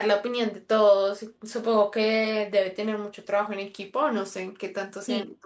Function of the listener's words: taking over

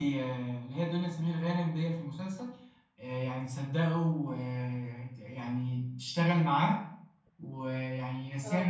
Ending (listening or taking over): listening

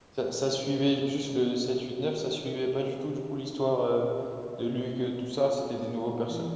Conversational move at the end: taking over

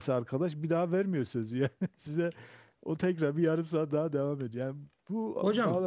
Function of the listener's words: listening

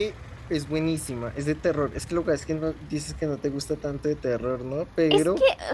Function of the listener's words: taking over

